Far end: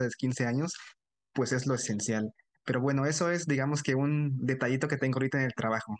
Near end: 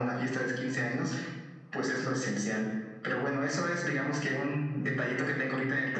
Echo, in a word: present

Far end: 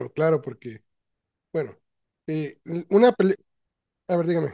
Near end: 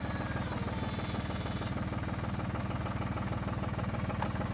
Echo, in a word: none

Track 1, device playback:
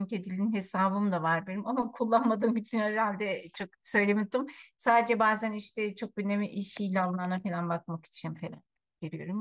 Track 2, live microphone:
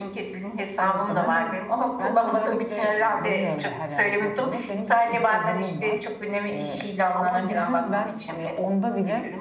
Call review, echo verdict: present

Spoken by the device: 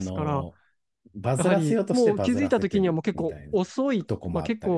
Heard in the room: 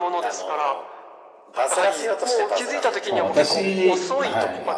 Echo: present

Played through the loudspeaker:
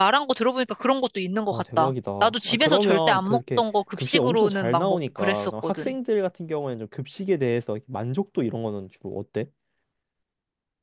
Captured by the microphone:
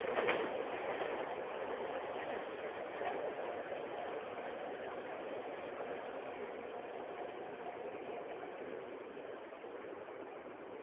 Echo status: none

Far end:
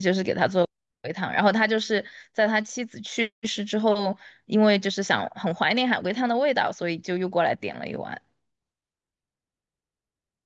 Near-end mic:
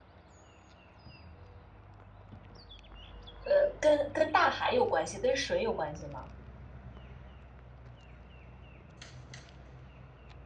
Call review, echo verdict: none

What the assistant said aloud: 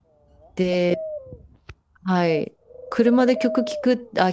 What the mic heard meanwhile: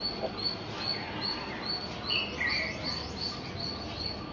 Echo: none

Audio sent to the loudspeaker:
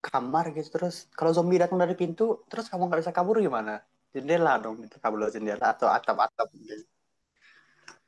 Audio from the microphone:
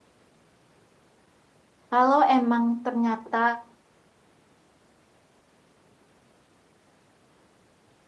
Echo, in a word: none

